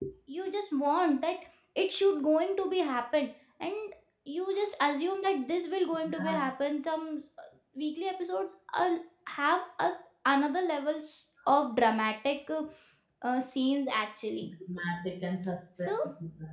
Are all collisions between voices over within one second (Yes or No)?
Yes